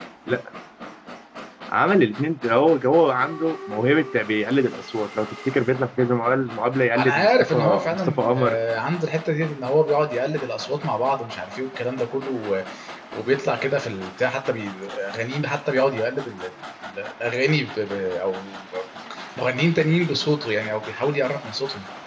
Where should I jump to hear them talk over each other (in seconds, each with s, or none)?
7.0 s